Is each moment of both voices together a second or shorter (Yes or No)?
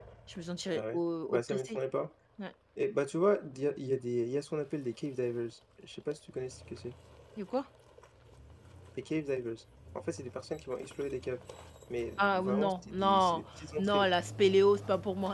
No